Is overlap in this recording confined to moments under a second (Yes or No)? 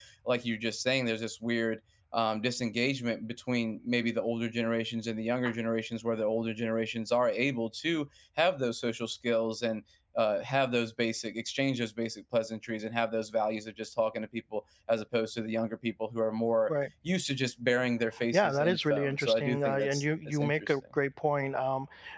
No